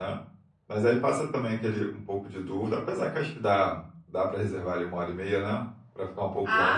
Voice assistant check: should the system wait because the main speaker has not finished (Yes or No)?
No